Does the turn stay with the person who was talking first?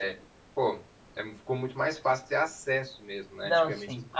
No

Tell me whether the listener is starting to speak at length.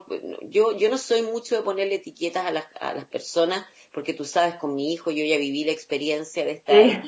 No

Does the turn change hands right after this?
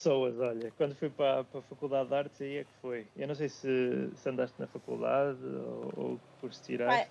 Yes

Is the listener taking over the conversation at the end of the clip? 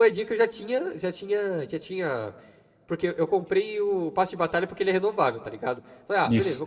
No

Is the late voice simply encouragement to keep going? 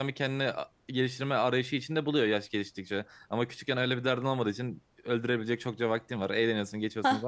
Yes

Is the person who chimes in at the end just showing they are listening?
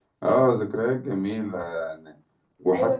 No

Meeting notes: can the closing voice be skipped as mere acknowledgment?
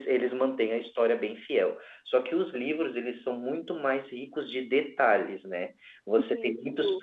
Yes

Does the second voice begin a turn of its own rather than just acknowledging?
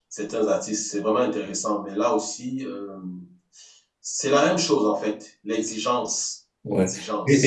Yes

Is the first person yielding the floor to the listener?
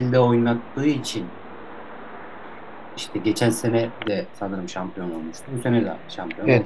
Yes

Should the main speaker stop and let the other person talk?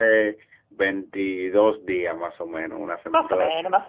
Yes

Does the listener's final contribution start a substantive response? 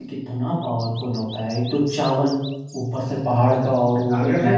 Yes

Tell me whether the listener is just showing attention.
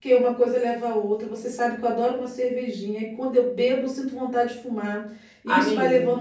Yes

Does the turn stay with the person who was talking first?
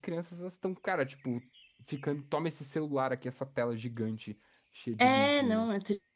No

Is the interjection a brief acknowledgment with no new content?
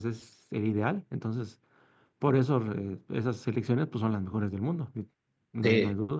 No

